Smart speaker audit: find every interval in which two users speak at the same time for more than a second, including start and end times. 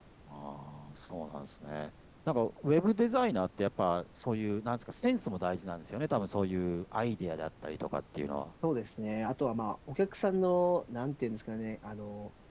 none

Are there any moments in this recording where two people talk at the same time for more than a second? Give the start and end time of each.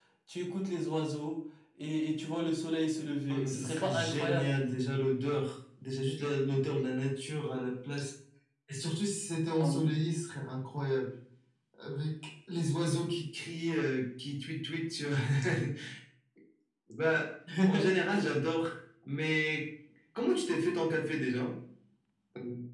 3.3-4.5

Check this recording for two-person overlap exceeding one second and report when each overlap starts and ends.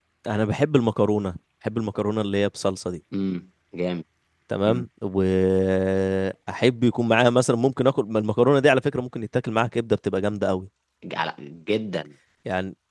none

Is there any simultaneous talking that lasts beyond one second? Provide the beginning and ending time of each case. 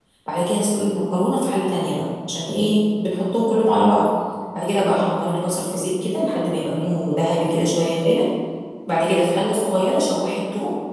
none

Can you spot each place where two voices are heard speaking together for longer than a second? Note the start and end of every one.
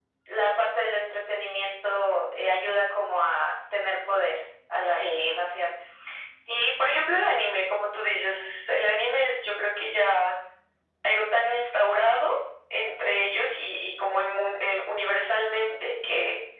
none

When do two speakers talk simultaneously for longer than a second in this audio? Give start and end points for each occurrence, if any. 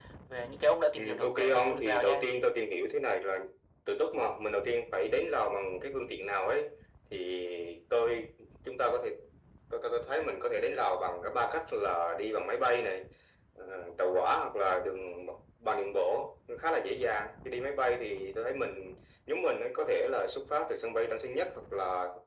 1.0-2.3

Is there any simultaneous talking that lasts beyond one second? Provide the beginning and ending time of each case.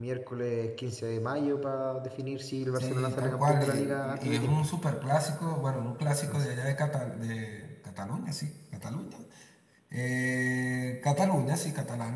2.8-4.7

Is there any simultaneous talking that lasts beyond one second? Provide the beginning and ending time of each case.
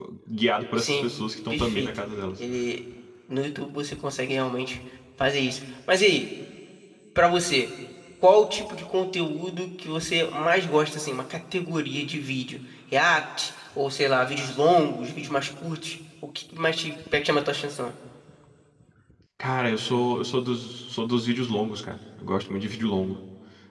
none

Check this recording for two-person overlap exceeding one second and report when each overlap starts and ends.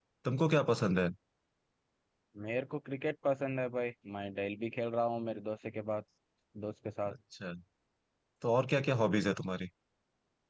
none

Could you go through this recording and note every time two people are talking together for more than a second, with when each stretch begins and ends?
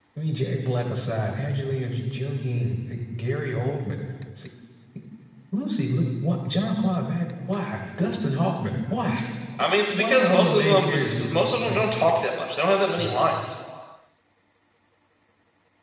9.6-11.2

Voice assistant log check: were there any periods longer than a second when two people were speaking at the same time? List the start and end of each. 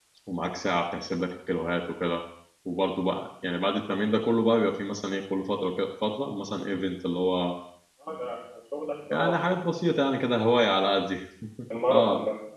none

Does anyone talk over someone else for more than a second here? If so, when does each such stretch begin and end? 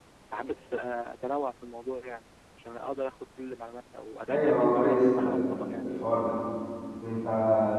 4.3-5.6

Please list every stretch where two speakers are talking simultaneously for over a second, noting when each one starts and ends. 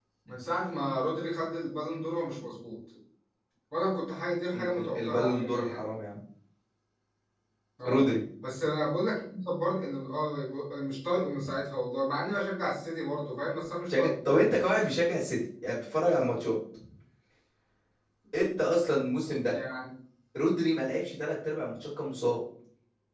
4.5-5.8

